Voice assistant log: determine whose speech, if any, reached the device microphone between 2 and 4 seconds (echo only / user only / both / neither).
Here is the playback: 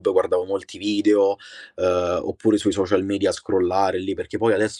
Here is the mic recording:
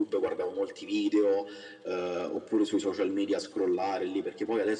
echo only